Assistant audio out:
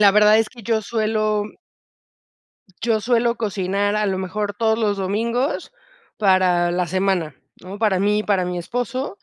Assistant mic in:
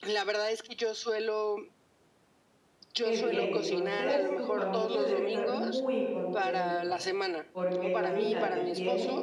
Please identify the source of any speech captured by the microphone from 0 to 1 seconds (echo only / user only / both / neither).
echo only